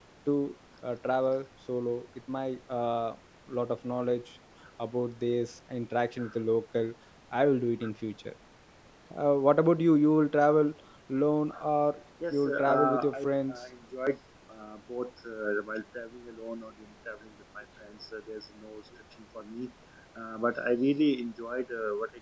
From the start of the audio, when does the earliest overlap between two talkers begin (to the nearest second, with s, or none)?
12 s